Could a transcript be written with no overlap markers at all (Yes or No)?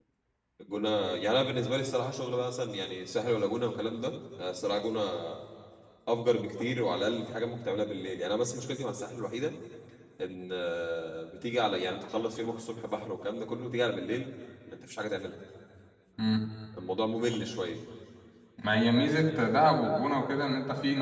Yes